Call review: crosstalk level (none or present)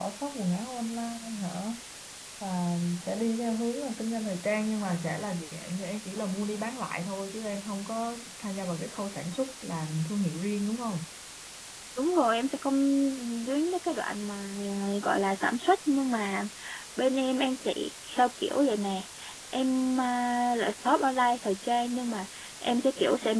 none